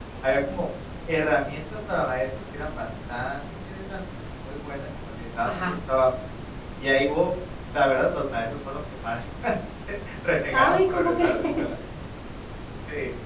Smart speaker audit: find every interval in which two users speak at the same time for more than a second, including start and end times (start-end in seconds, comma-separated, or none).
10.5-11.7